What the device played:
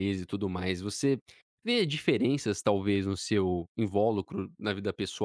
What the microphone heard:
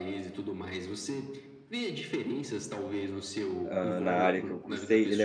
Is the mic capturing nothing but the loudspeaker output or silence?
No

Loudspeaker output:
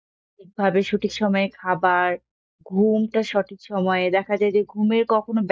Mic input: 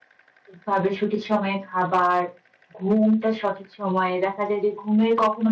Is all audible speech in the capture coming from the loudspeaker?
Yes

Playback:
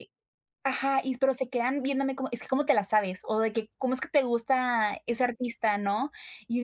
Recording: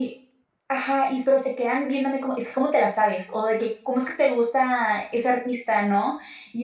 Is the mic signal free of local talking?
Yes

